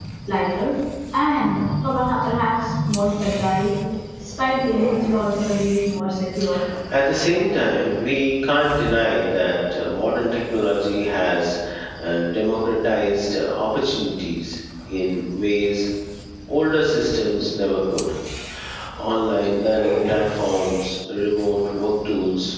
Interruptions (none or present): none